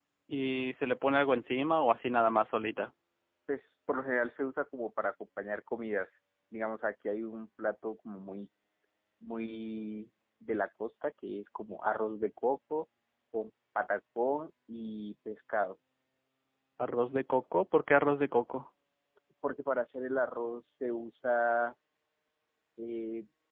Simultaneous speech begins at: none

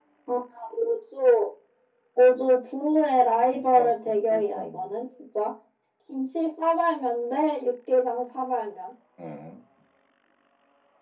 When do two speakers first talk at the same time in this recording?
3.5 s

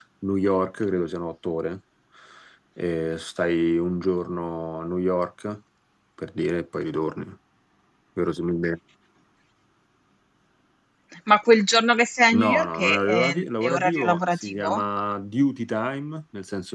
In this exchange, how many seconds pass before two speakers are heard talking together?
12.3 s

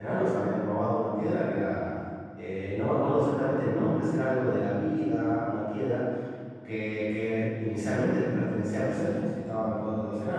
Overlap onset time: none

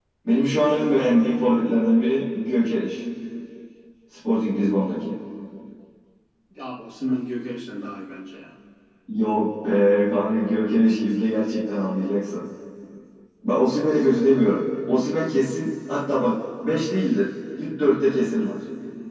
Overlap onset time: none

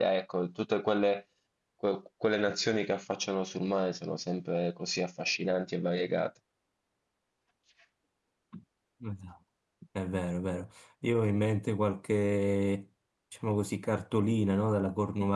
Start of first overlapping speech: none

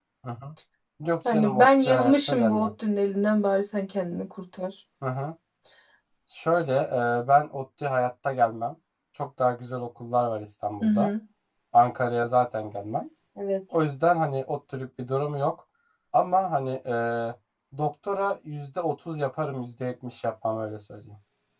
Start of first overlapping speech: 1.3 s

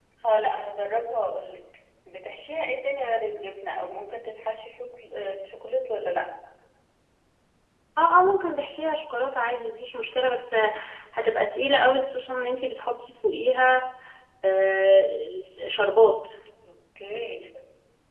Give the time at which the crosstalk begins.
none

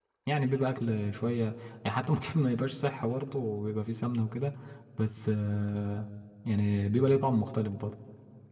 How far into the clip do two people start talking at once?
none

